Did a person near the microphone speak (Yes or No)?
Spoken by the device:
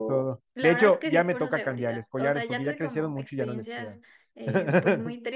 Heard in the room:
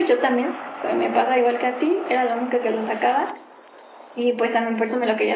Yes